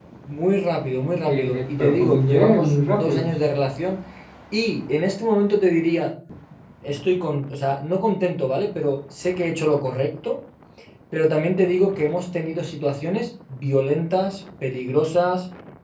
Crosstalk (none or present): present